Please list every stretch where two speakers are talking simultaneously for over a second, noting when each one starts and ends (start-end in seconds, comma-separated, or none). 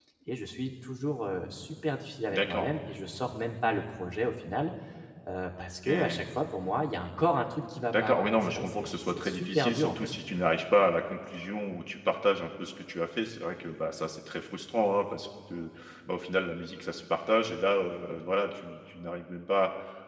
7.9-9.9